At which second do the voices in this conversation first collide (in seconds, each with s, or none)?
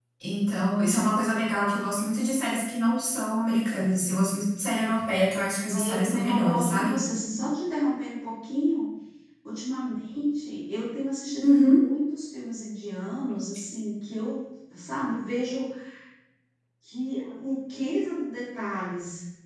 5.7 s